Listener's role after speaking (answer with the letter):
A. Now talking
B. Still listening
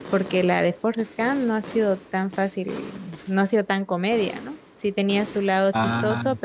B